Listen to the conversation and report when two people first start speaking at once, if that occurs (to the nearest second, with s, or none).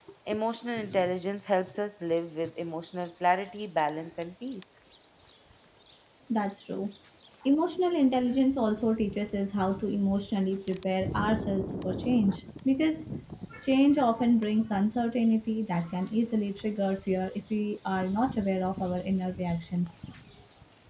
none